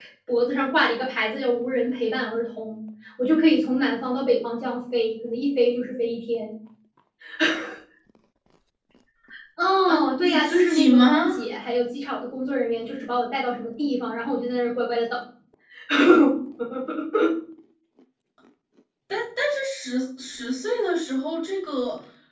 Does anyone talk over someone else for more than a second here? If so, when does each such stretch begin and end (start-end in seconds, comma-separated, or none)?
9.9-11.4